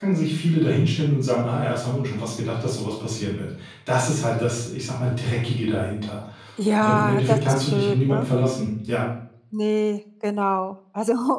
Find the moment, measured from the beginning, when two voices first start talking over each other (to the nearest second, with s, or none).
7 s